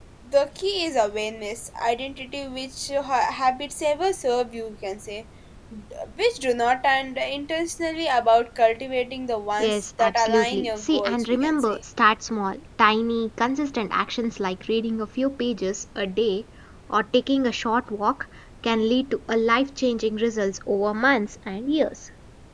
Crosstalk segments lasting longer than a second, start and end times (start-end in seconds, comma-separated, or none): 9.6-11.8